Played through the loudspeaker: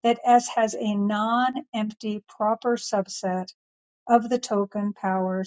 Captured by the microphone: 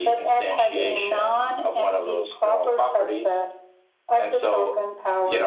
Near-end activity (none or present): present